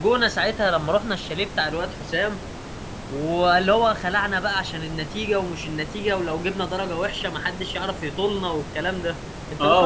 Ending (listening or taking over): taking over